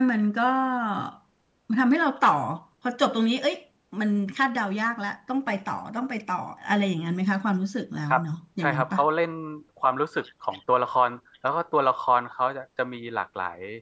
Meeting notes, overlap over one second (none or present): none